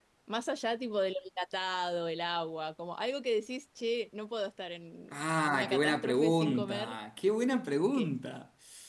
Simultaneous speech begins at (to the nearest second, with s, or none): 5 s